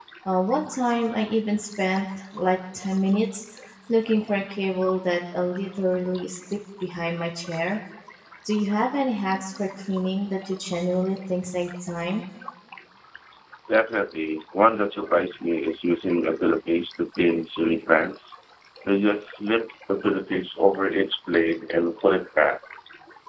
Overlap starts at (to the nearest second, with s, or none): none